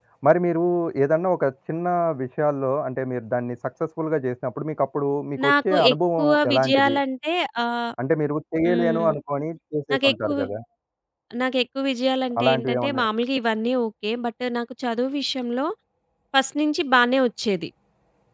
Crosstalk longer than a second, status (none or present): present